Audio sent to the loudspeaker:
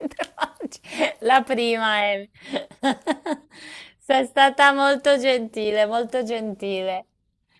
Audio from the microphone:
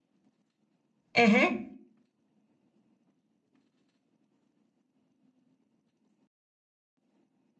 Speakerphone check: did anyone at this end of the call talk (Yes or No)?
Yes